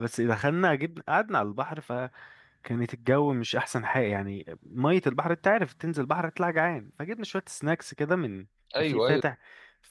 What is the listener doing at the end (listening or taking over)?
listening